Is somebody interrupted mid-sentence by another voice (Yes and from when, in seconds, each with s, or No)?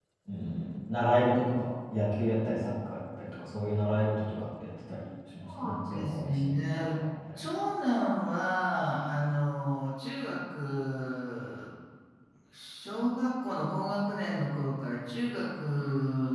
Yes, from 5.5 s